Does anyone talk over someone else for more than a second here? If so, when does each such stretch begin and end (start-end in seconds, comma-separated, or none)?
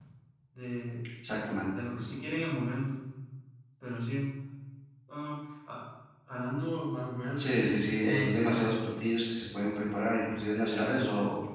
7.4-8.6